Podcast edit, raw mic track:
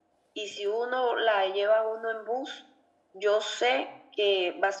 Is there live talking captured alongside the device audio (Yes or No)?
No